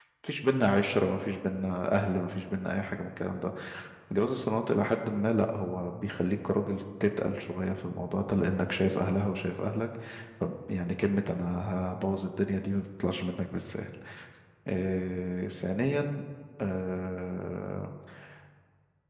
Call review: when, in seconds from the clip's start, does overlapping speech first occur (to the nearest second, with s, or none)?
none